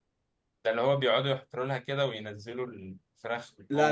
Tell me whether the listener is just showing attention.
No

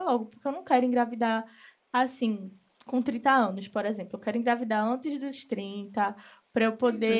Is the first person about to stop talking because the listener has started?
No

